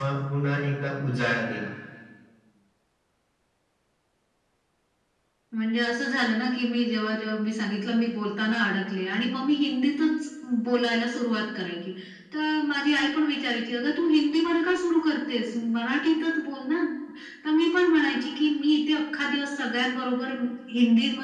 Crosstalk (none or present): none